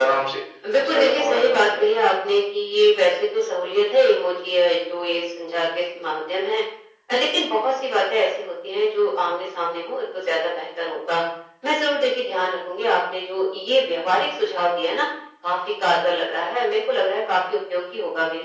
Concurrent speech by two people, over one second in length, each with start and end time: 0.7-1.9

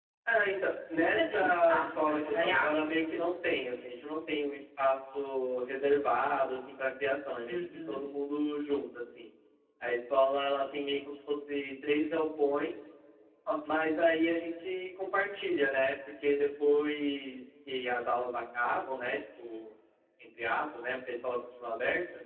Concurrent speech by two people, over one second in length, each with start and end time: 1.1-2.8

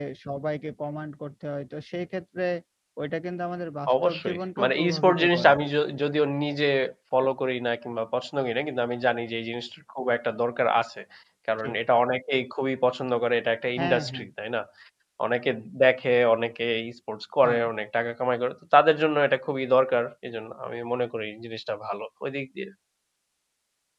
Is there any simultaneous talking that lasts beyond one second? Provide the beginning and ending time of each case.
4.0-5.5

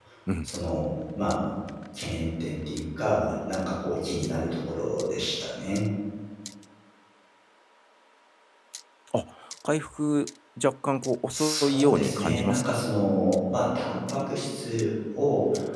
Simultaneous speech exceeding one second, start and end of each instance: 11.3-12.8

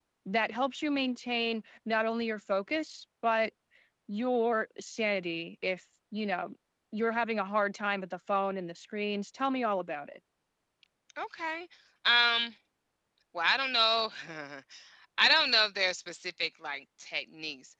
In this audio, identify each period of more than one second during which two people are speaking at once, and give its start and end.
none

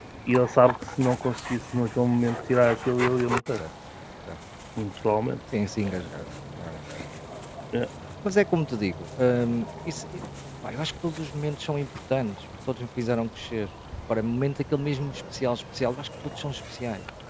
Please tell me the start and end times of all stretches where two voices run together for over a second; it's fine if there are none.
none

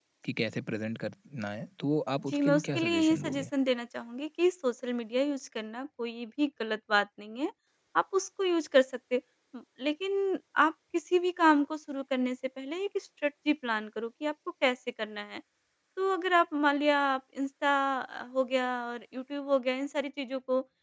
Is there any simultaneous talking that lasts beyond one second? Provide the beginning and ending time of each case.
2.3-3.5

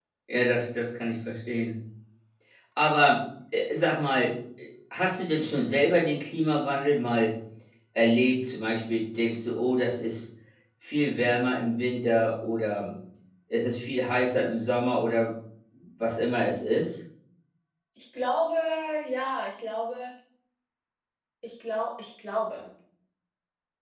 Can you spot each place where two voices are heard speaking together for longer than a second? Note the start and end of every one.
none

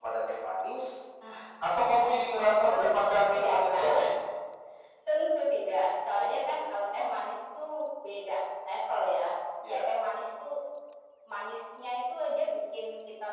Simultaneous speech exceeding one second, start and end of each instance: 2.7-4.0

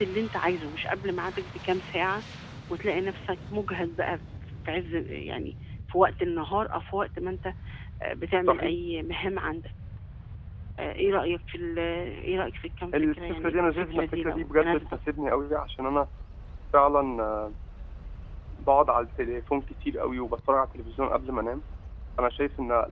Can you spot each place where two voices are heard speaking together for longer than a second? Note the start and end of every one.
12.9-15.0

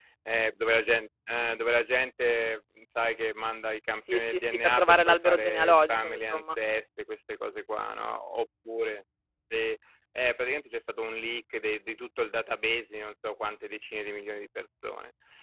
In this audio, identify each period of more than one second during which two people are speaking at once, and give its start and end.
4.1-6.4

